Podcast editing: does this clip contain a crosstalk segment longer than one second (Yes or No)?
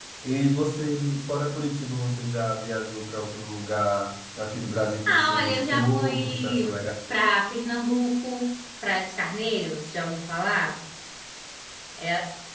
Yes